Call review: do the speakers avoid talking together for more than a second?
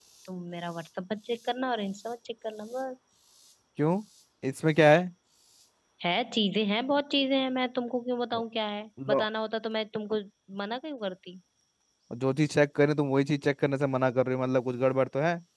Yes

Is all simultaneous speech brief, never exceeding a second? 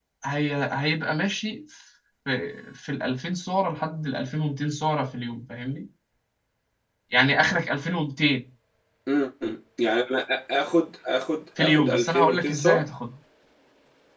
No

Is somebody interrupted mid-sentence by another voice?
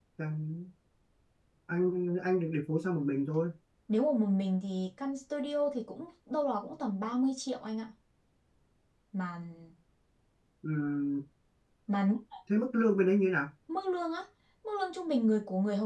No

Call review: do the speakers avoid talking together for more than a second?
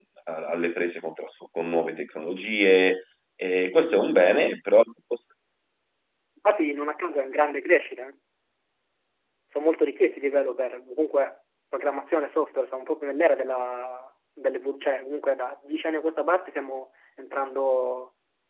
Yes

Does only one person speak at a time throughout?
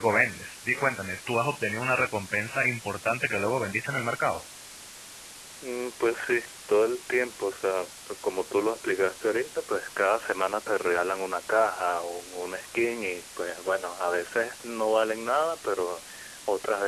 Yes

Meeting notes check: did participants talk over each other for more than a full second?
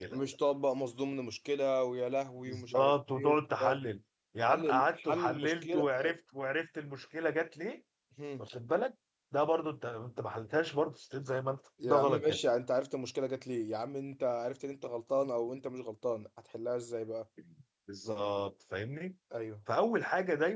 Yes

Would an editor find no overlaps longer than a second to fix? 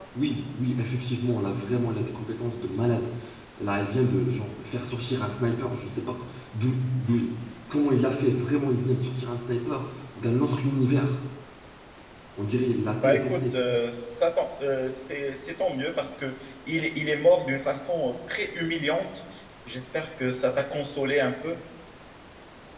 Yes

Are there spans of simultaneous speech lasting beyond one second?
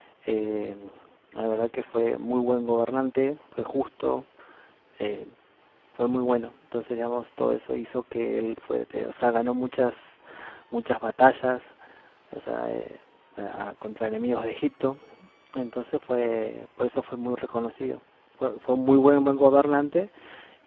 No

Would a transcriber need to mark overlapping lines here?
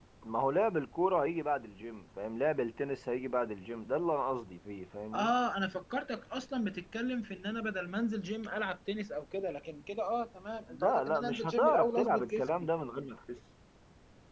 Yes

